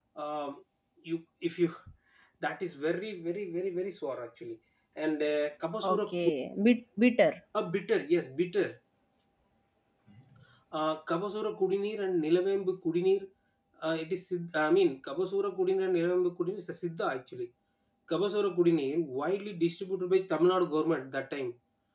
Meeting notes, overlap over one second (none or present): none